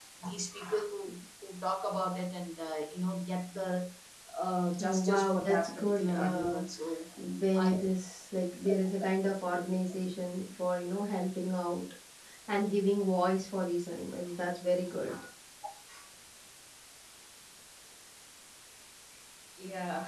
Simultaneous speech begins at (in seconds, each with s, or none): 4.8 s